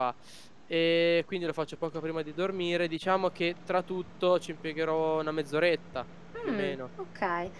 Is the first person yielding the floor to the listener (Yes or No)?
Yes